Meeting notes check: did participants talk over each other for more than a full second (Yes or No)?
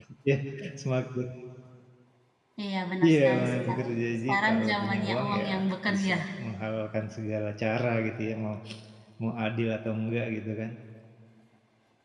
Yes